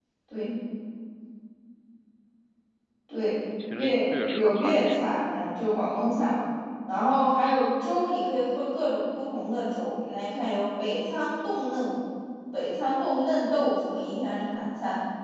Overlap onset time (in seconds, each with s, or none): 3.7 s